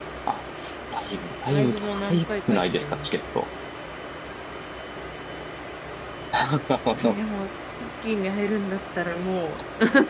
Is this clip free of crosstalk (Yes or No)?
No